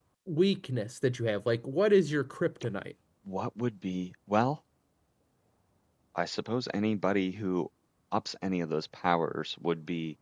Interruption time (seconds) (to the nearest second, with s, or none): none